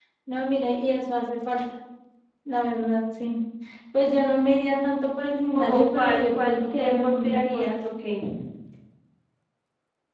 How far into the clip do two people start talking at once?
5.5 s

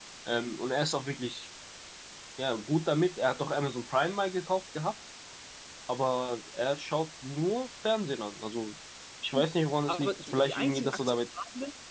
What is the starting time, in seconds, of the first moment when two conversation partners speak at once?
9.9 s

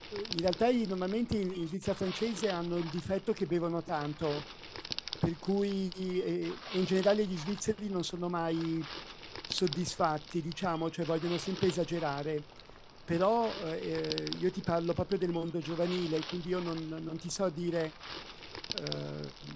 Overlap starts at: none

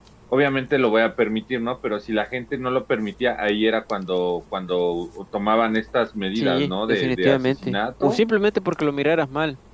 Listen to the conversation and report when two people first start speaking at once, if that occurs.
6.4 s

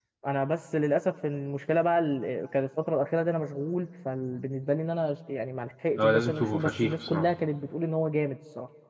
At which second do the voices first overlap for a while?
6.0 s

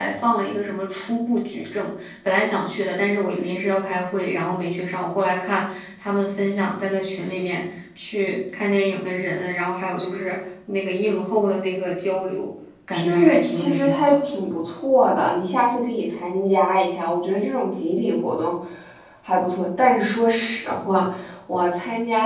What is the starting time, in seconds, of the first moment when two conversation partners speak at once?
12.9 s

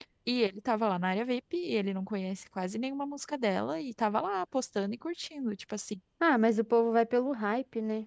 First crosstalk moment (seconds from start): none

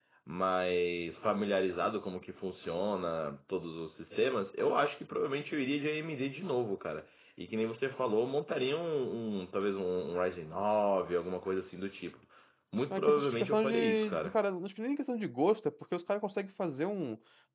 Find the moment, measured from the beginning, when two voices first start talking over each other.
12.9 s

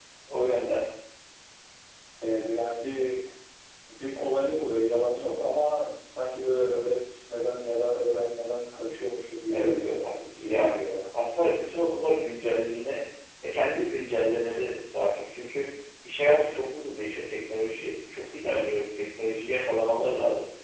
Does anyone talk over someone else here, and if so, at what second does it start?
9.5 s

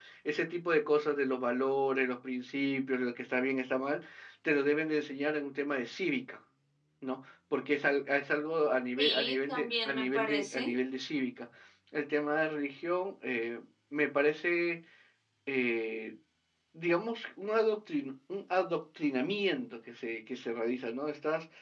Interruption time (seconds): 9.0 s

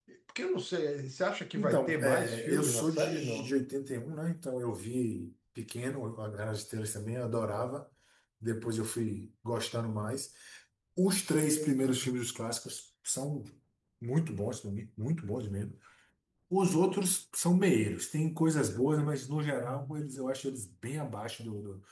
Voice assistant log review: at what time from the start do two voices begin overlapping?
1.6 s

